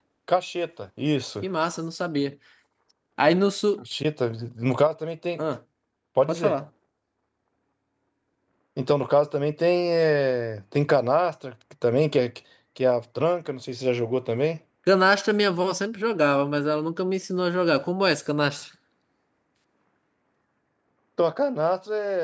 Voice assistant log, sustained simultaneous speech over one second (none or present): none